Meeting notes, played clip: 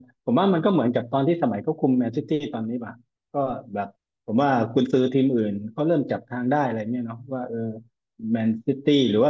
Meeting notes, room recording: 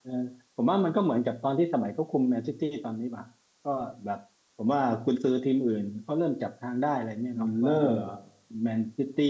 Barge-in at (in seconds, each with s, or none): 7.4 s